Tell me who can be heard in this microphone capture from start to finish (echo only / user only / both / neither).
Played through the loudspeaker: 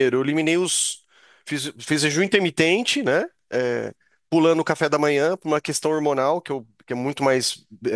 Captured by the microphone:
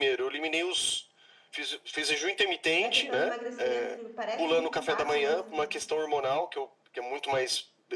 both